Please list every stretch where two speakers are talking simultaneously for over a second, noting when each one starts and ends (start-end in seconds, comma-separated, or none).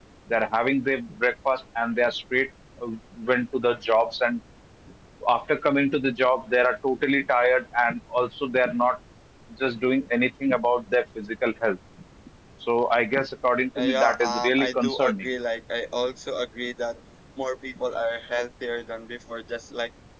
13.8-15.3